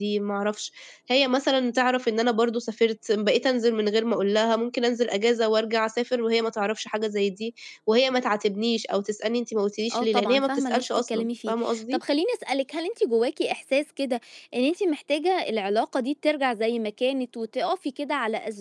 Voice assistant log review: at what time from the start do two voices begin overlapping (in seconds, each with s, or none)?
9.9 s